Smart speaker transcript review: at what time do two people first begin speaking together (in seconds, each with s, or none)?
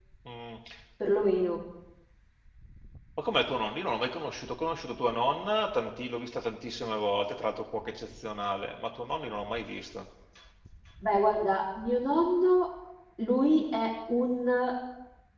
none